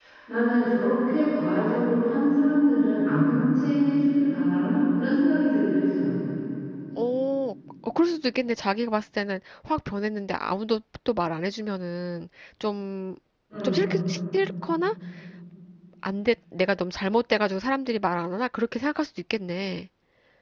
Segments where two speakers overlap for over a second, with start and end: none

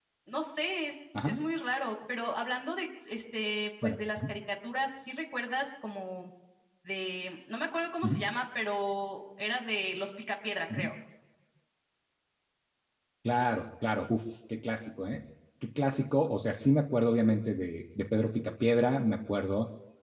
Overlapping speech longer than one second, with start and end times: none

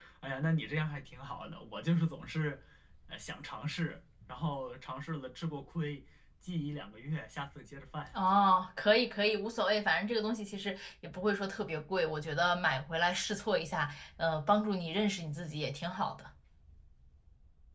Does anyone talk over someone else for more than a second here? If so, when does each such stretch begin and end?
none

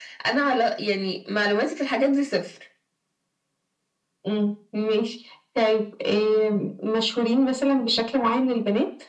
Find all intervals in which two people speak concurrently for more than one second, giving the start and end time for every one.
none

